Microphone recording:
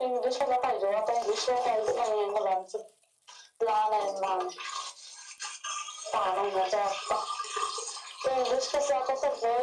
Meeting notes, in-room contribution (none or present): none